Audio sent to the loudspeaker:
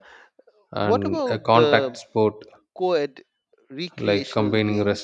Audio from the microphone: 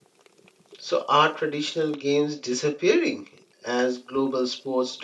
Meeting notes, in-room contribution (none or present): present